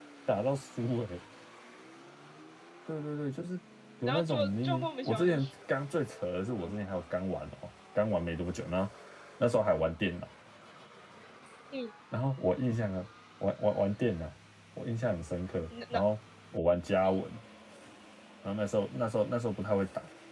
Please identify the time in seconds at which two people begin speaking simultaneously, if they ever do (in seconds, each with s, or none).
4.1 s